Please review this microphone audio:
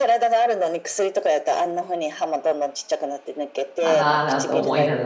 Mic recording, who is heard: both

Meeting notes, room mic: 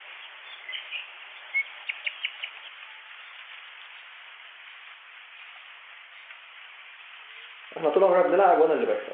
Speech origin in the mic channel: user only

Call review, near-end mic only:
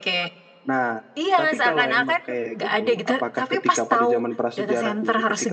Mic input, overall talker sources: echo only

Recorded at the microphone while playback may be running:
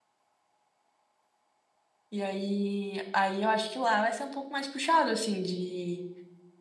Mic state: user only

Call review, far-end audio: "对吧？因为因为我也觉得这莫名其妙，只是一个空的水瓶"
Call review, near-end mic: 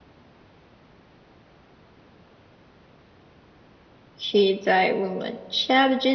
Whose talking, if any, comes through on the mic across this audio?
user only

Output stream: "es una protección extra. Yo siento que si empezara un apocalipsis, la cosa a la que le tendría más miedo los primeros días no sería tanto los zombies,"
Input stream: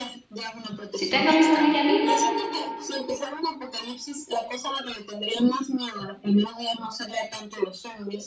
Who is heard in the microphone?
both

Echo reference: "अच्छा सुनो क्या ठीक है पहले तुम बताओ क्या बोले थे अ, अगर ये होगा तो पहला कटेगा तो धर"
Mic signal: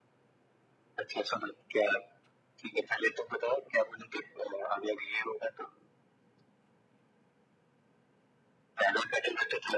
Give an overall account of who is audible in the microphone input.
echo only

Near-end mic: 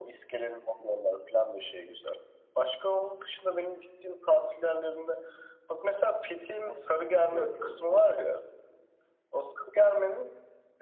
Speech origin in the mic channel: both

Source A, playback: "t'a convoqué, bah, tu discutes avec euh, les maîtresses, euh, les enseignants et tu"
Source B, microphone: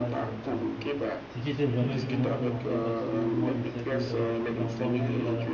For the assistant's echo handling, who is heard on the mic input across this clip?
both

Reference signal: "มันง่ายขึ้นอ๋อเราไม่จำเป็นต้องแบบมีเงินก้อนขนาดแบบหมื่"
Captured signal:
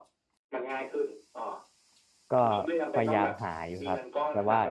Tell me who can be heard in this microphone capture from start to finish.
both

